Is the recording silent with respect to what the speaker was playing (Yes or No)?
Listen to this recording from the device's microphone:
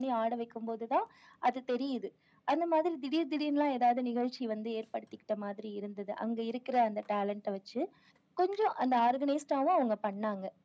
No